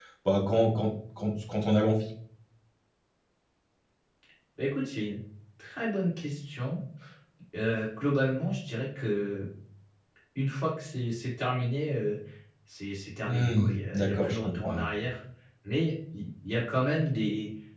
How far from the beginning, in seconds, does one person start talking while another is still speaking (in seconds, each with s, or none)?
13.3 s